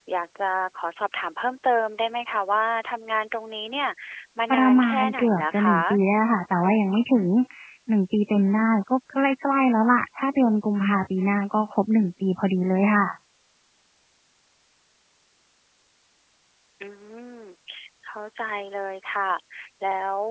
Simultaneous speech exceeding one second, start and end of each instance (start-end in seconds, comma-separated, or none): 4.5-5.8